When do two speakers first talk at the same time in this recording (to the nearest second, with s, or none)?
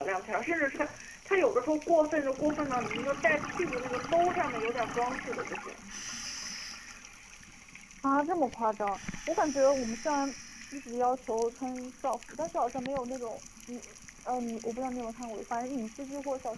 none